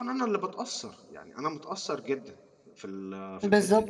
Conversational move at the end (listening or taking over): taking over